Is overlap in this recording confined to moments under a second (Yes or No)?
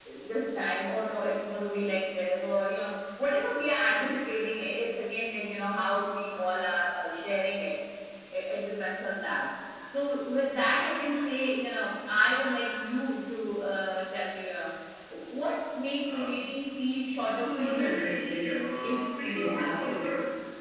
No